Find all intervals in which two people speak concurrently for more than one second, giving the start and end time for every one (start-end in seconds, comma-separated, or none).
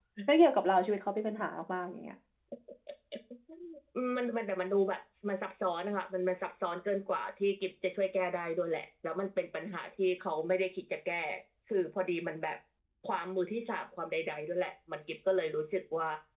none